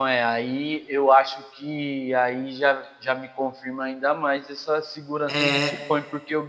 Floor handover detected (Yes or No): No